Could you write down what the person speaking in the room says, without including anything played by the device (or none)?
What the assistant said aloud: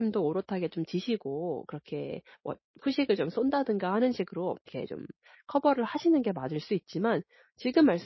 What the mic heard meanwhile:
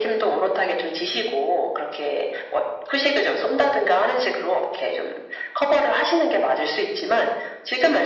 none